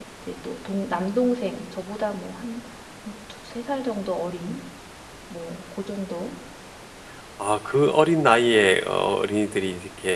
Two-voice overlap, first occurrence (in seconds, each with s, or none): none